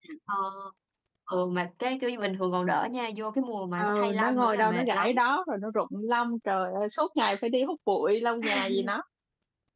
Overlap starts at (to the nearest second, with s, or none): 4 s